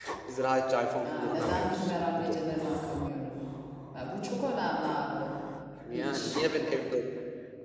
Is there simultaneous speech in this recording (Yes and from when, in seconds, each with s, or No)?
Yes, from 1.0 s